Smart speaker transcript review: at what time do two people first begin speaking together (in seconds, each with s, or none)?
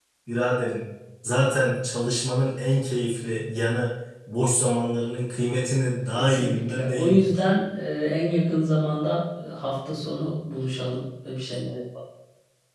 6.2 s